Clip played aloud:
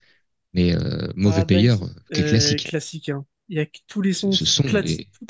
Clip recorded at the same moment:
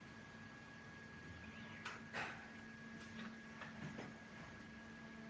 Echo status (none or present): none